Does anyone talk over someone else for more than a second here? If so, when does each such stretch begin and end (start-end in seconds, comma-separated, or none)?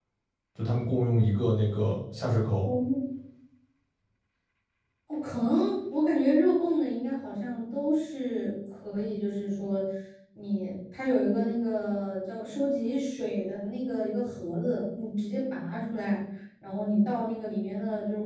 none